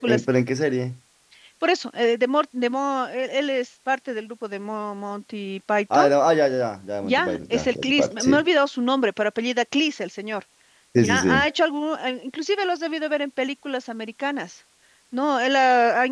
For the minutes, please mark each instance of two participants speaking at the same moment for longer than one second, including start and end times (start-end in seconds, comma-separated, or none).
7.0-8.4